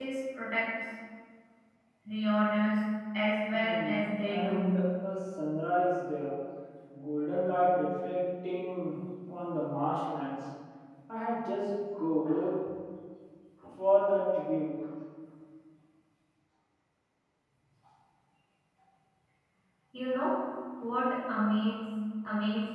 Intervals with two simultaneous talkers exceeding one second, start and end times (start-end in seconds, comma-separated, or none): 3.5-4.8